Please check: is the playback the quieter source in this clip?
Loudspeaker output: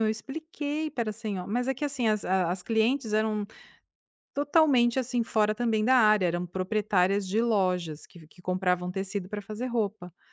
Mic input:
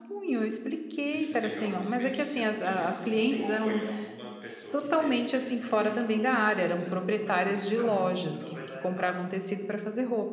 No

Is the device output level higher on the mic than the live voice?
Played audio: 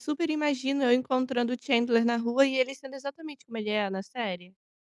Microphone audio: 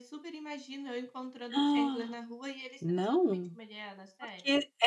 No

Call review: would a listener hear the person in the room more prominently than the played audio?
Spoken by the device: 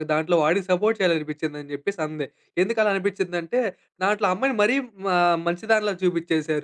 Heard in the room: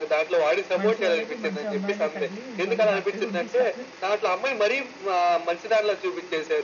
No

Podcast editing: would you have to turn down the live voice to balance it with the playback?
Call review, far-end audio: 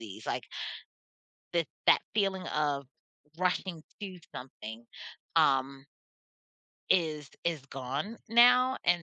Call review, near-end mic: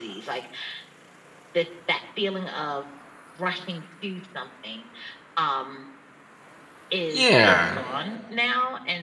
Yes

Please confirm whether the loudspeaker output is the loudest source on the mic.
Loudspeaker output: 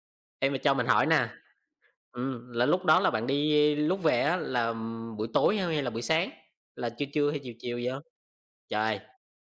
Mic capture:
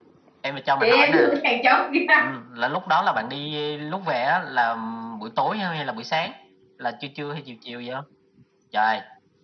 No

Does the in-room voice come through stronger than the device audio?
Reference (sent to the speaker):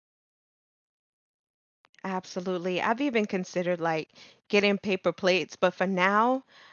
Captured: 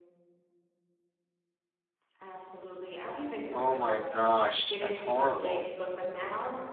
Yes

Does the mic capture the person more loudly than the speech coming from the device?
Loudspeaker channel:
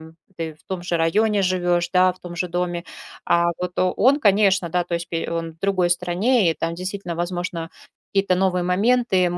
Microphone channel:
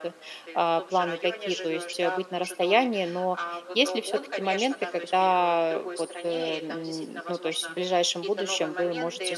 Yes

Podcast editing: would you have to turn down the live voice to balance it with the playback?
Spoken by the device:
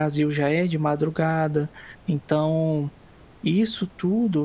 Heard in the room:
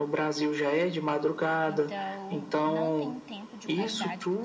No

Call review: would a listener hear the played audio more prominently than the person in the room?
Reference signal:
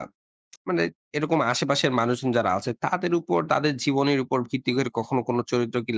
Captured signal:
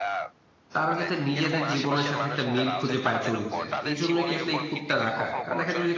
No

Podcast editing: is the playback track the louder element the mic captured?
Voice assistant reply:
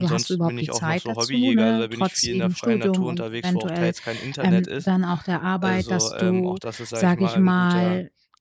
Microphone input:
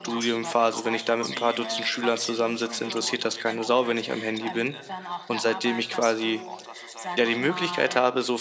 No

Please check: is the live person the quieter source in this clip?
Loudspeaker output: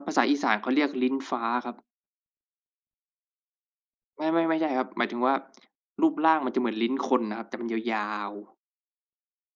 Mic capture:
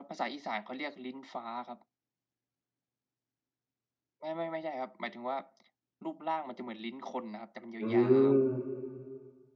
No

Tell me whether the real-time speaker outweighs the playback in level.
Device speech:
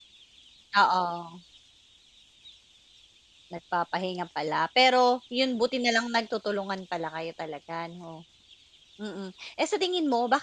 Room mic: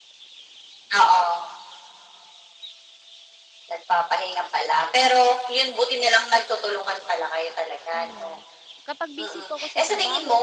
No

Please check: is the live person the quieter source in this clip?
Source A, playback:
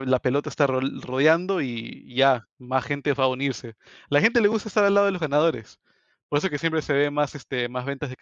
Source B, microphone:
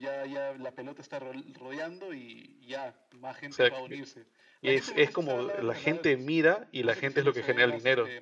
No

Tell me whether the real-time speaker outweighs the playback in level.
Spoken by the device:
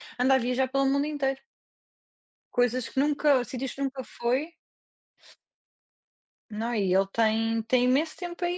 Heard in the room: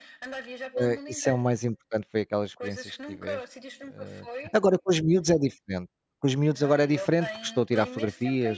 Yes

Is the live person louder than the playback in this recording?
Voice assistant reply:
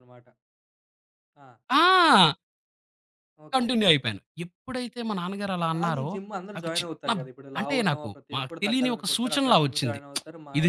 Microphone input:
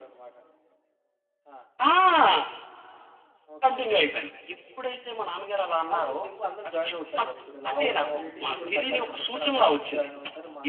No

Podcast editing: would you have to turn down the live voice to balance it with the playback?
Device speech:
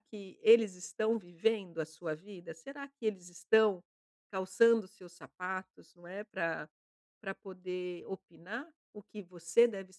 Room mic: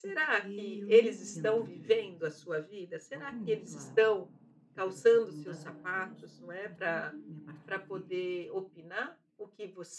No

